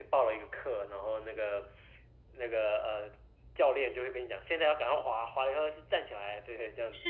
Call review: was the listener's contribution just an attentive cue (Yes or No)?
No